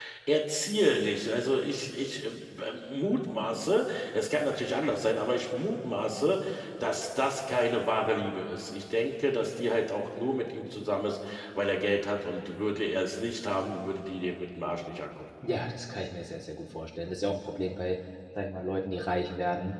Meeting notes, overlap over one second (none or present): none